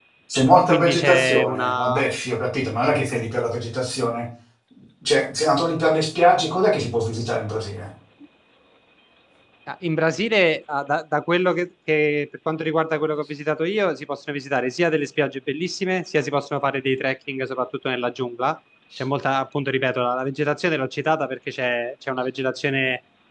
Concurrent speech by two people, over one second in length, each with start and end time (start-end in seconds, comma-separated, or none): 0.7-2.0